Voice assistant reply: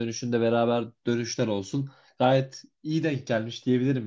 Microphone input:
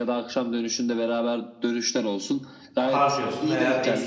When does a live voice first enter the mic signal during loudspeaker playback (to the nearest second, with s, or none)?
3 s